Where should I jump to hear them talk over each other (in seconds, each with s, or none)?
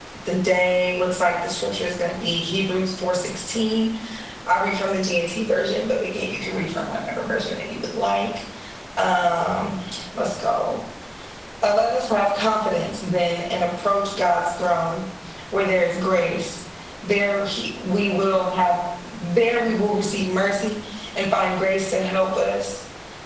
none